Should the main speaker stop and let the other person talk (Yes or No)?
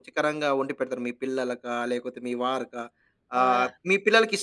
No